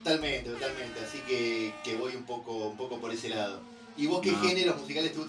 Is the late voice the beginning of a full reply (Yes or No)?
No